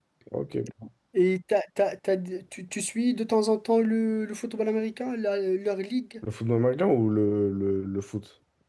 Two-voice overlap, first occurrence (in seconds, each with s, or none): none